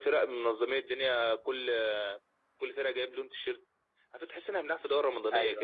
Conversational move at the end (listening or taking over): taking over